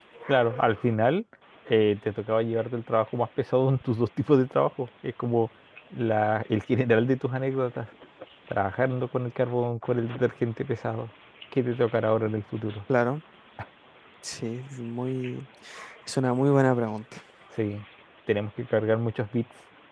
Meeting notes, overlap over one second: none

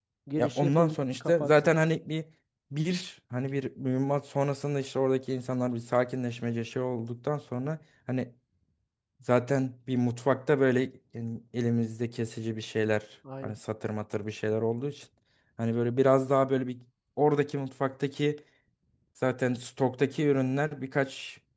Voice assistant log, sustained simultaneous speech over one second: present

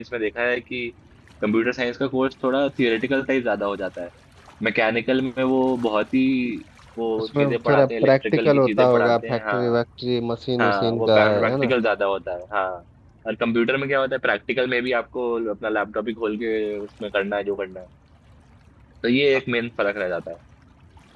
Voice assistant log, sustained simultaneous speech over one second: present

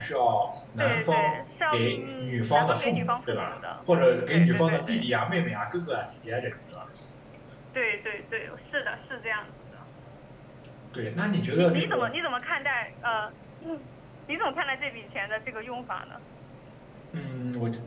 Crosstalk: present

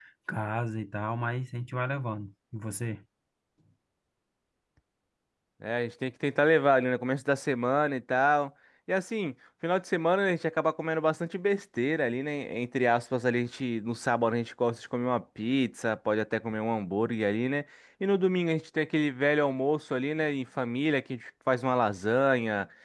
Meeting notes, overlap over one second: none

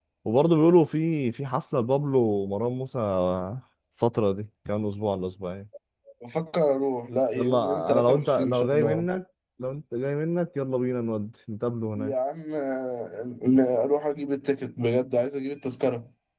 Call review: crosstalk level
present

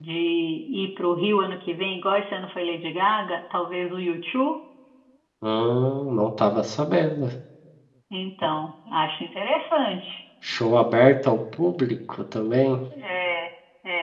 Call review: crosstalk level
none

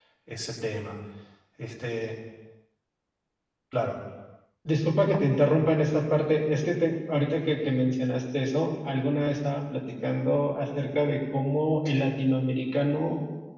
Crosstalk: none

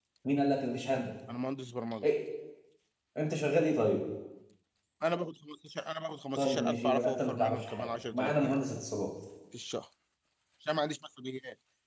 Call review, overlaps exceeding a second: present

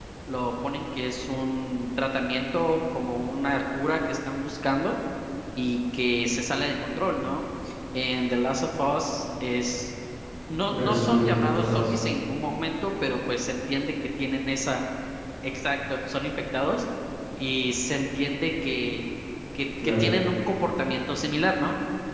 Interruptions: present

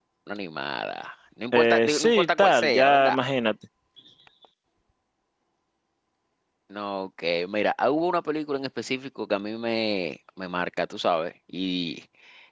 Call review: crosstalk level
present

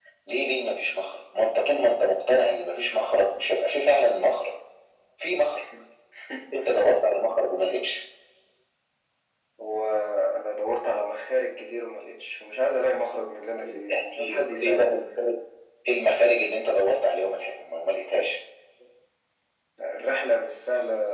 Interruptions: present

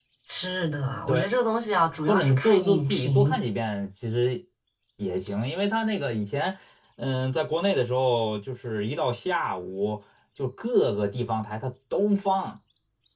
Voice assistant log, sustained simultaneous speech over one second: present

